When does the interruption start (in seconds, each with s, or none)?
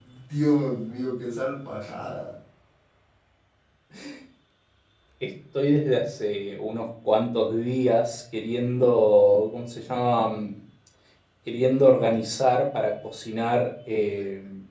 none